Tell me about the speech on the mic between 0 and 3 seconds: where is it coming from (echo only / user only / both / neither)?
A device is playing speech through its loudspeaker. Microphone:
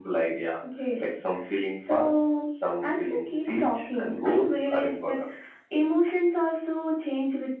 echo only